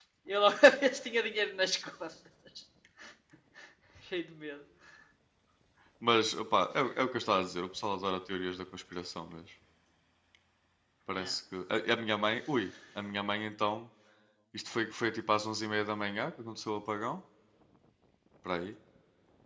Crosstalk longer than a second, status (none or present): none